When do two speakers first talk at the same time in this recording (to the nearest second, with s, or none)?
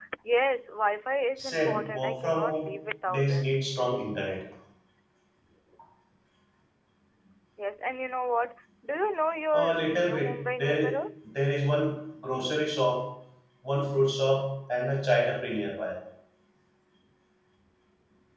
1 s